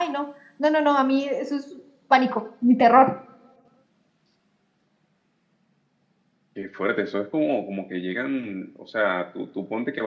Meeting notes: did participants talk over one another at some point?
No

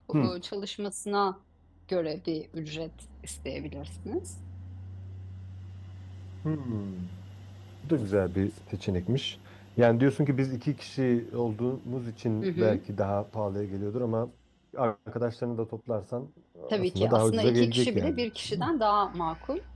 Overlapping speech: Yes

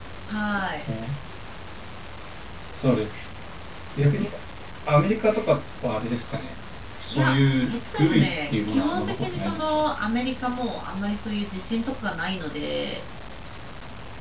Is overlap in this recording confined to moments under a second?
No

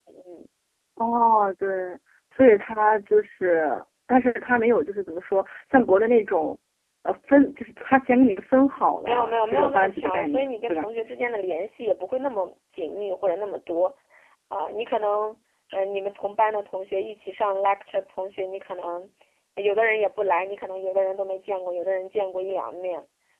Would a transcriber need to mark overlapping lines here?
Yes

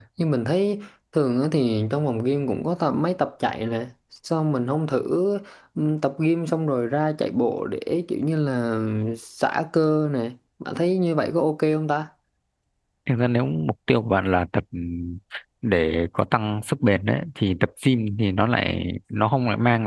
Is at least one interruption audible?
No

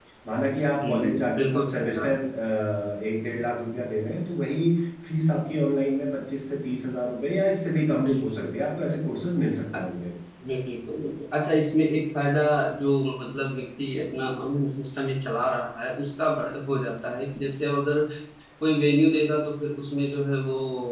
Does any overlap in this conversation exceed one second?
Yes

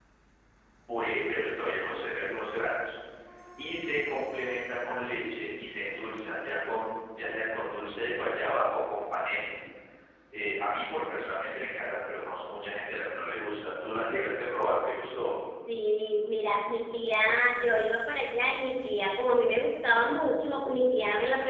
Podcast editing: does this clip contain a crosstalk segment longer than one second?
No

